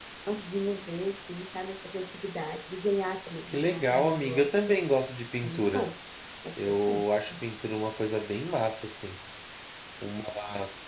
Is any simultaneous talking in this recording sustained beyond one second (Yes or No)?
Yes